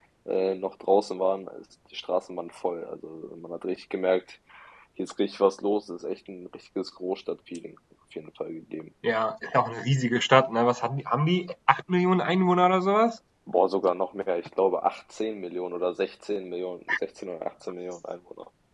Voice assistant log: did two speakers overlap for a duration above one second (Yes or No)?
No